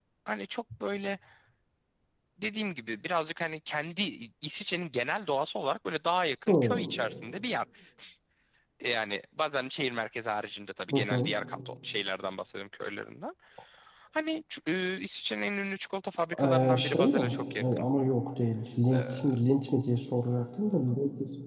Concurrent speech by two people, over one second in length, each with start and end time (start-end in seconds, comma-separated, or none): 16.4-17.8